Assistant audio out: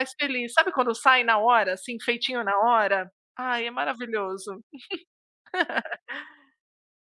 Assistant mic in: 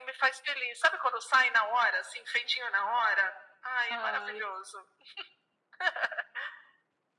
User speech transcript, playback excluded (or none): Ai eu